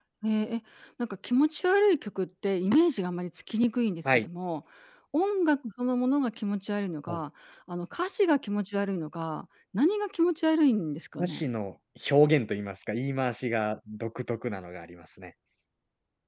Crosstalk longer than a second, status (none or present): none